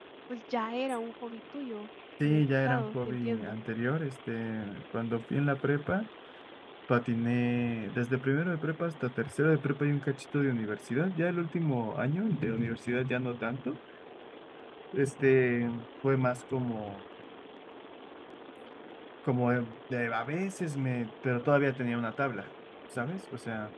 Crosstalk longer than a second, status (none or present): present